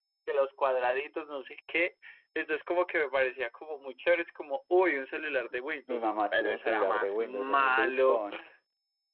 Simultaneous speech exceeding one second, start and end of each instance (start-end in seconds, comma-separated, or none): 5.9-8.2